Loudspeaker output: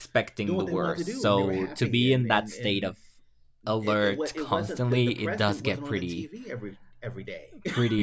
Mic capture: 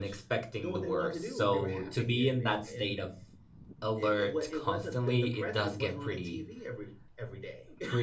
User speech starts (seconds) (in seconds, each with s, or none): none